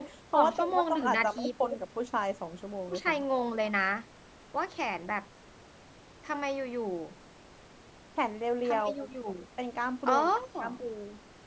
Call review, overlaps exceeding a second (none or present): present